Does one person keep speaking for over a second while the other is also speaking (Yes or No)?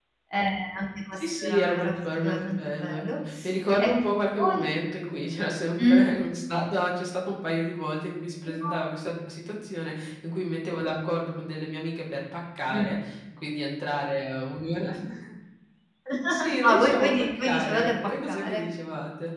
Yes